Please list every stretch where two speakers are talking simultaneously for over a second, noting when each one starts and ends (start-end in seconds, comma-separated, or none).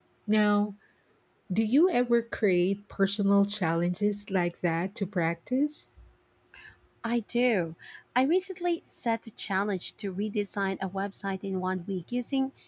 none